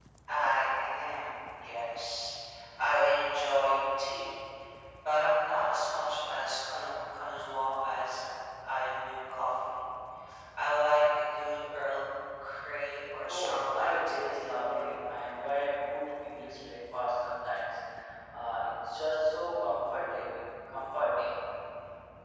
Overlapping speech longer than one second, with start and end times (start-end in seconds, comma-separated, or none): 13.2-15.1